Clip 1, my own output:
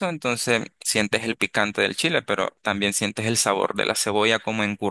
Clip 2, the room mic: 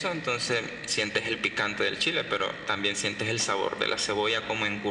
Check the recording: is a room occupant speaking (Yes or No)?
No